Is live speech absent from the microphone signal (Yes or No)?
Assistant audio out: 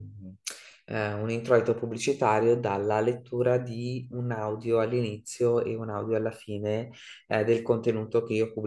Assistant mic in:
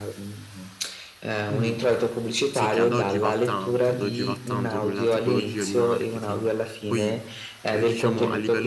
No